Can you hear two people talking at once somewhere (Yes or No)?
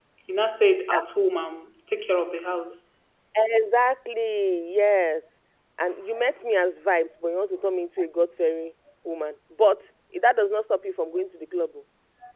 No